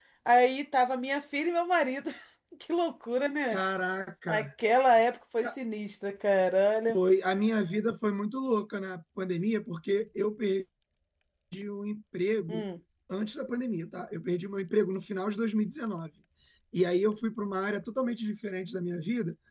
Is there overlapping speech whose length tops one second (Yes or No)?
No